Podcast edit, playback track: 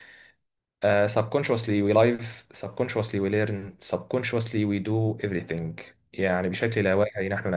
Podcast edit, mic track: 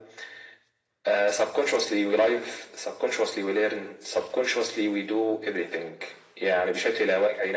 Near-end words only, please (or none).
none